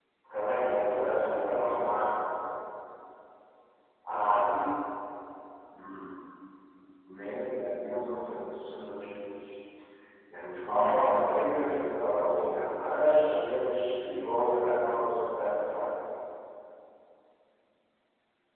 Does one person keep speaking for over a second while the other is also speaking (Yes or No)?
Yes